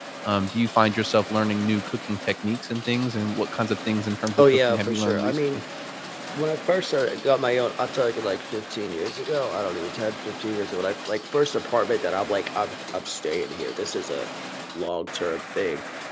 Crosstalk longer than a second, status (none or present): present